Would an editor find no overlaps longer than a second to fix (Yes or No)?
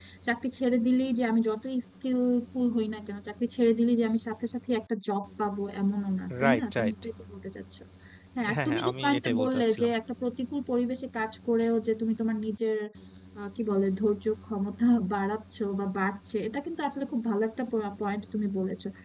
No